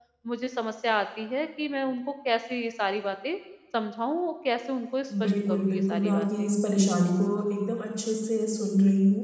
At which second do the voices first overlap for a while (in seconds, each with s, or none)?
5.1 s